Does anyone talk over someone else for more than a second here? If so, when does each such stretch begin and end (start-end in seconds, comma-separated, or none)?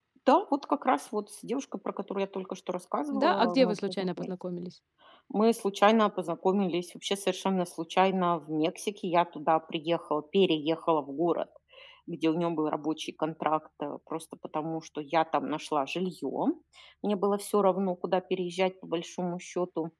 3.1-4.3